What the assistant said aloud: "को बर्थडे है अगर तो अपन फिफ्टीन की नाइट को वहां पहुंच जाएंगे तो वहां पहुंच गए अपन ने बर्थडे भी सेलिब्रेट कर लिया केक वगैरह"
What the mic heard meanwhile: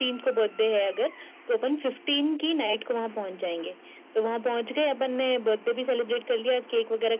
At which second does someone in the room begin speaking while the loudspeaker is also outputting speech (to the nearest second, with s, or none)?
none